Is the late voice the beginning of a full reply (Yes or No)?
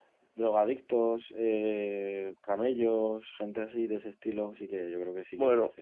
Yes